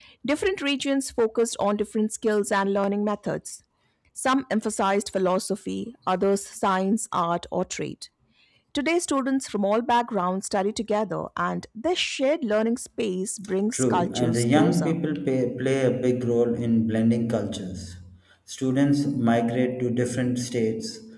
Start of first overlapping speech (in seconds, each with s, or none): 13.7 s